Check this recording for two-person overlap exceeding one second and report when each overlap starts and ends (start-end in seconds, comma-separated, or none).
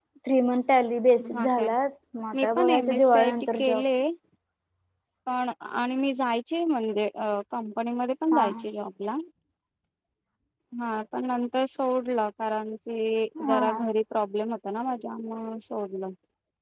2.4-3.8